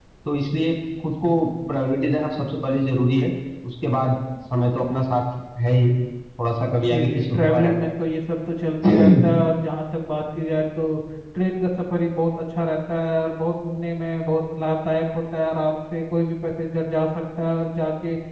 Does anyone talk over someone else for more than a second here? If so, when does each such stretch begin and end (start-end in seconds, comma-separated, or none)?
6.6-7.9